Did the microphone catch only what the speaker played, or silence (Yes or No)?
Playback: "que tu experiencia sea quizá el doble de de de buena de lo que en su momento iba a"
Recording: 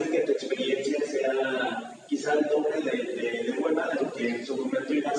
Yes